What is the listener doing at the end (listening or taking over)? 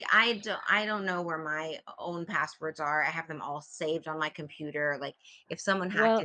listening